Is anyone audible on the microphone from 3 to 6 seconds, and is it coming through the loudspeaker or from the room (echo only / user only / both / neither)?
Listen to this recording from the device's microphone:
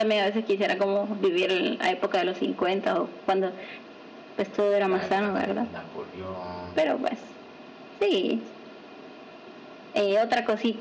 both